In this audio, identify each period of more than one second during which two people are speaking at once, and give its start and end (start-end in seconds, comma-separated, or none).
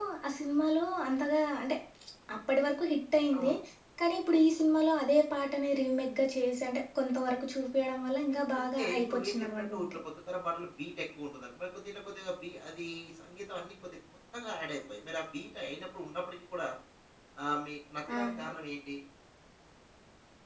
8.5-10.0